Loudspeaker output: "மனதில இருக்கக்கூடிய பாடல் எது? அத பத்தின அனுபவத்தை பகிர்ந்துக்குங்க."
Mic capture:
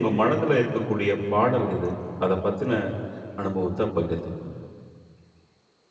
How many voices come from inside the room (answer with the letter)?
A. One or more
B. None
B